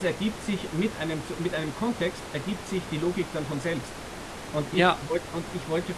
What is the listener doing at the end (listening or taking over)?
listening